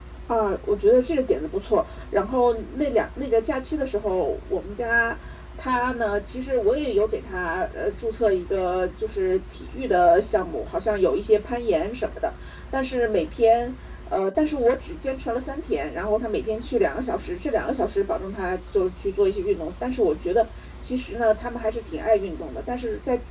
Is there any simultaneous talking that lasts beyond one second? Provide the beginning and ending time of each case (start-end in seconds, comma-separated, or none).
none